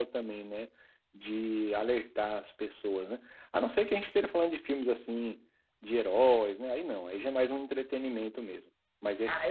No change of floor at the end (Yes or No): No